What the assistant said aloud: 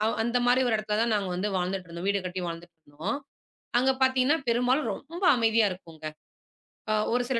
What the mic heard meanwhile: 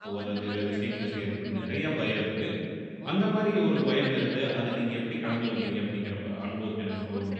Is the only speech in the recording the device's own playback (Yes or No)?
No